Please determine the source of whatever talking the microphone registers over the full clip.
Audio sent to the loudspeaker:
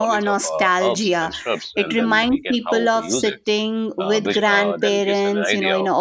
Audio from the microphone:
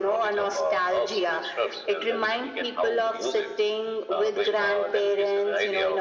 echo only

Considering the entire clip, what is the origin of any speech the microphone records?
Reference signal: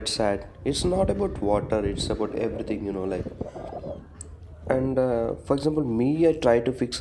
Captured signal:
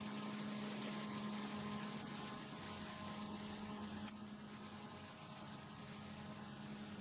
neither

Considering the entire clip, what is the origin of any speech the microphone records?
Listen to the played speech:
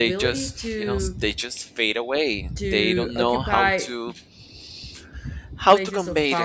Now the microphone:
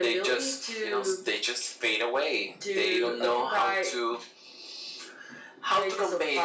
echo only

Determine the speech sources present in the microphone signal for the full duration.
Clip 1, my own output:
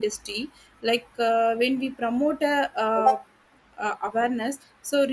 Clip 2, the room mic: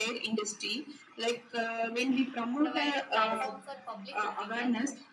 both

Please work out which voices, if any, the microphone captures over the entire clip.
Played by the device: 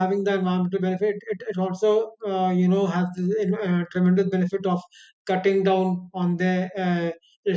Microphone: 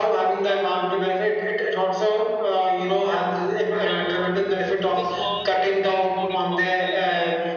both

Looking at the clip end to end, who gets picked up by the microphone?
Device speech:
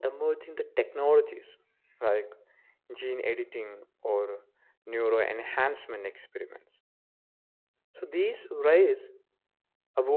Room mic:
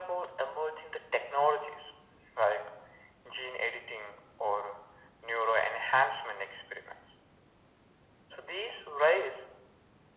echo only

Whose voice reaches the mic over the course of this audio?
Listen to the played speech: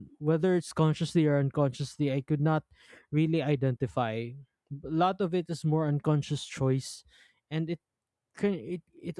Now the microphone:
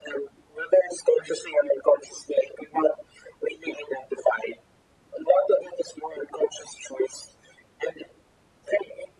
echo only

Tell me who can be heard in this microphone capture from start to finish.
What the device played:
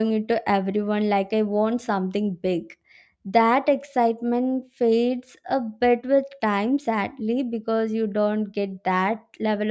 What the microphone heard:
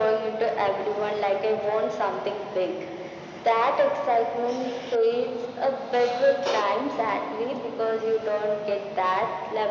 echo only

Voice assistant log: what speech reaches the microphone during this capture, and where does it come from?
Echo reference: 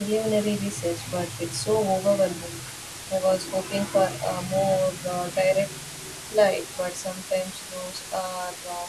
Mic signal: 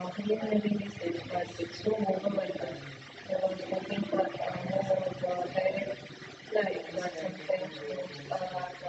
both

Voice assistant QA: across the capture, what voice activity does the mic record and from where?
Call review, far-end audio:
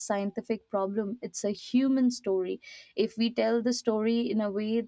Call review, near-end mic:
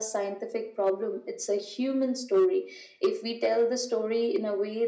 echo only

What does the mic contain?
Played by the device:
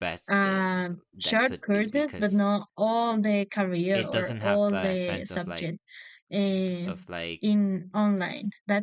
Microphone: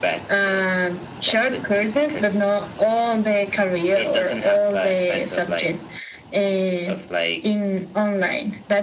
echo only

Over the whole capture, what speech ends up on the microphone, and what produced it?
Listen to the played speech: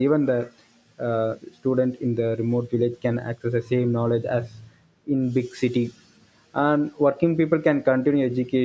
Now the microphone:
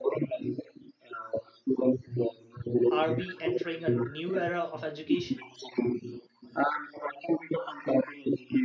both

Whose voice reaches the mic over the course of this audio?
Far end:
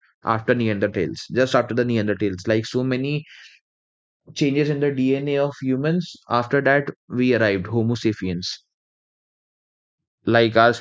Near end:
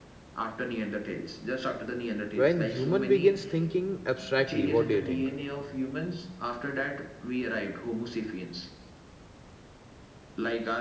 both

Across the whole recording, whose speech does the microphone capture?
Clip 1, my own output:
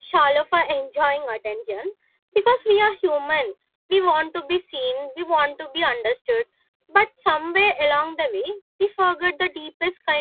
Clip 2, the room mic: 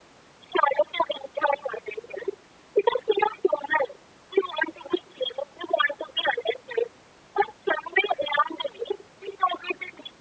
echo only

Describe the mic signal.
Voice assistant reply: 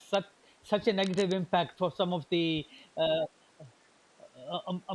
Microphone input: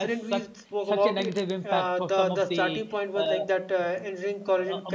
both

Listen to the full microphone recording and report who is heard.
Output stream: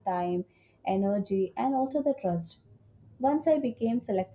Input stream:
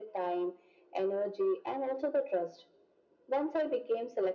echo only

